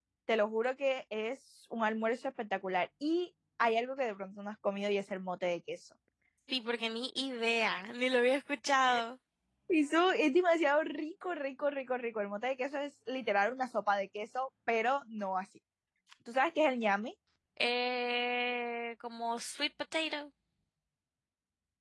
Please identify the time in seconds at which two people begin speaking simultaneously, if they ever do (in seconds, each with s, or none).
none